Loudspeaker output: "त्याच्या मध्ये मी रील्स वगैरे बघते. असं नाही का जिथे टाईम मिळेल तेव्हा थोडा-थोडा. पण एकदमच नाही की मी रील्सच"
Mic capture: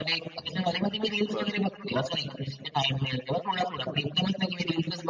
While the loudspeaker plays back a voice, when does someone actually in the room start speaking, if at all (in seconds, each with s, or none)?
1.3 s